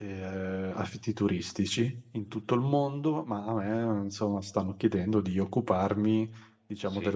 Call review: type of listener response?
listening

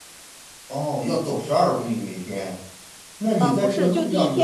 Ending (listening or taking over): taking over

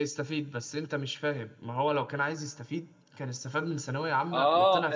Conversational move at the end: taking over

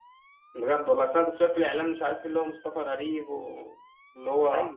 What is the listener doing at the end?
listening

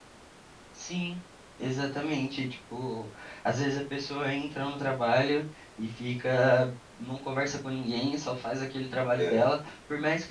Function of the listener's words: listening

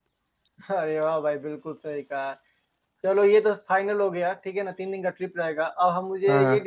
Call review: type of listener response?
listening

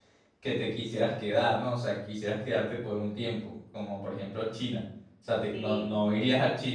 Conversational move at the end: listening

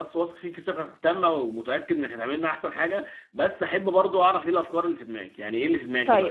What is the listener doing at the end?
taking over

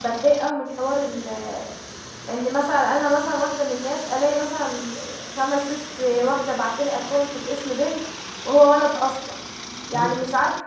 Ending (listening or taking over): listening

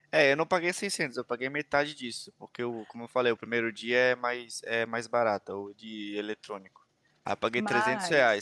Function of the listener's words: listening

